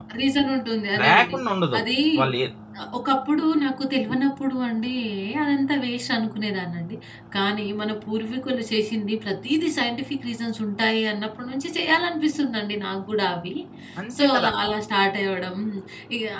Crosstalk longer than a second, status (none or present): none